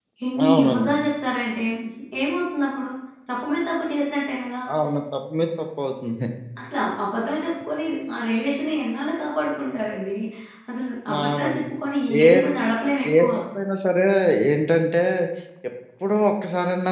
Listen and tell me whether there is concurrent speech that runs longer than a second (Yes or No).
No